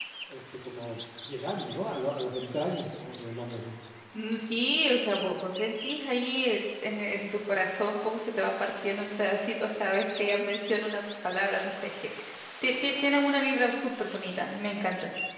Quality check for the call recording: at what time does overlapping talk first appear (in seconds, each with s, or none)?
none